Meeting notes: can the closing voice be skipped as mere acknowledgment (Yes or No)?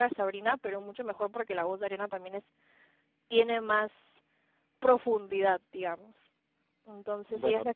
Yes